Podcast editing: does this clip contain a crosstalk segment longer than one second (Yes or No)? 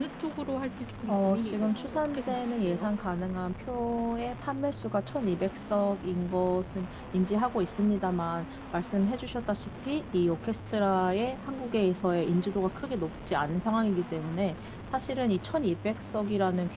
Yes